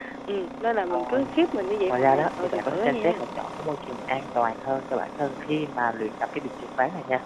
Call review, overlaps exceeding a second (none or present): present